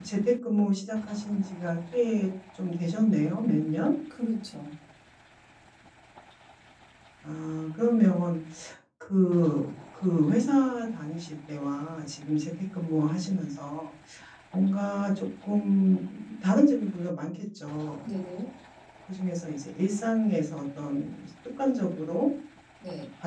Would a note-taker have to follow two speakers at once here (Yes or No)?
No